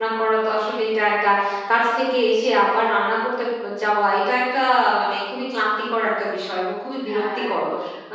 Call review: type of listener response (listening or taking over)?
listening